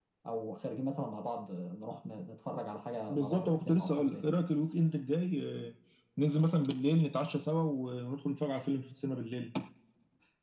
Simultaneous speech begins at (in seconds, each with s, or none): 3.1 s